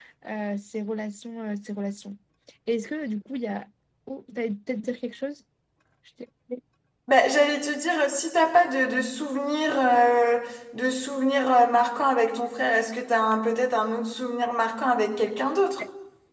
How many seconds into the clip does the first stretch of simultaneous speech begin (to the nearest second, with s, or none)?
none